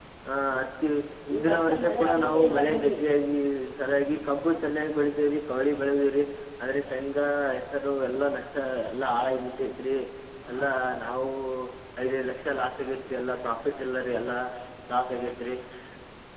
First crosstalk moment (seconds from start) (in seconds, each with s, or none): 1.4 s